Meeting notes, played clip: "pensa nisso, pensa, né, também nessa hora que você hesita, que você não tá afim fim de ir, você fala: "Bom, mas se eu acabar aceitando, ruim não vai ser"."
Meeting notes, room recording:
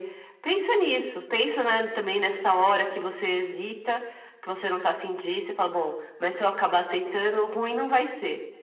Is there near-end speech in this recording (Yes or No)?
No